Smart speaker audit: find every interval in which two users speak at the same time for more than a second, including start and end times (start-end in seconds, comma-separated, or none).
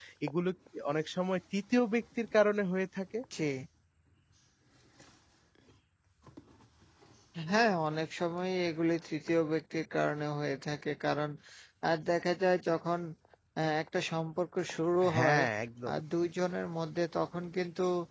none